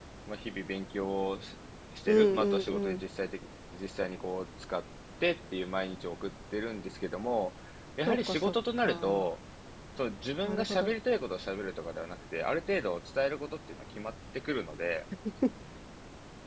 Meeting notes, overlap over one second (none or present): present